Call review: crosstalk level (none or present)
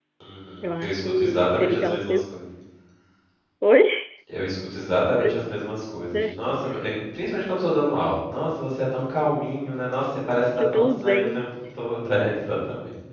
present